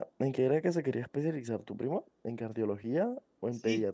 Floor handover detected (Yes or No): Yes